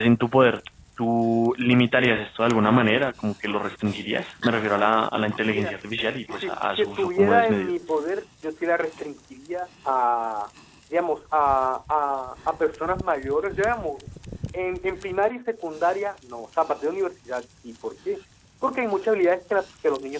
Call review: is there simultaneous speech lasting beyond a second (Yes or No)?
Yes